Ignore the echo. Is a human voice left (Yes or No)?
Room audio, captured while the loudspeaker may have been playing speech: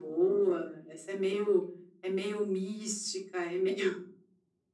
No